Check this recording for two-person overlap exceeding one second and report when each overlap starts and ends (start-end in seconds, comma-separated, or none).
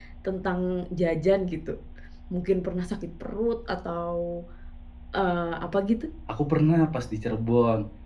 none